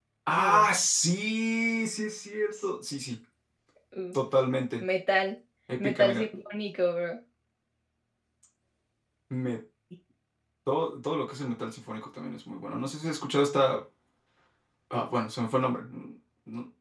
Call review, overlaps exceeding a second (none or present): none